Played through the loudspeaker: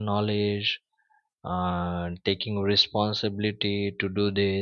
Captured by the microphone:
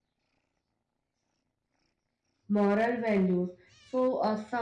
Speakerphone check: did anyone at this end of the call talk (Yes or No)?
Yes